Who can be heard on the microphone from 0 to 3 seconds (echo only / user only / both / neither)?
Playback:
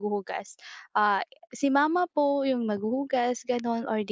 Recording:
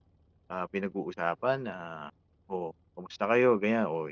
user only